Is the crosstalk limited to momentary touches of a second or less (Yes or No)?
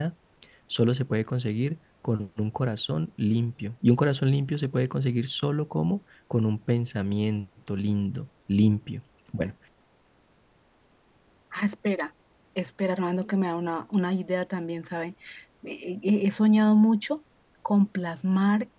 Yes